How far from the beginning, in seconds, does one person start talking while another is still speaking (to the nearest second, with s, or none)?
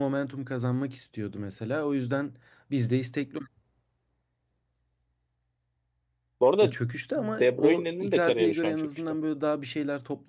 7 s